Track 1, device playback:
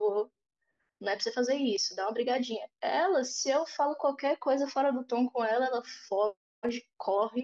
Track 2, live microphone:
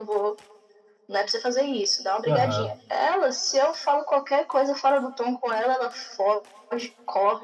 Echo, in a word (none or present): present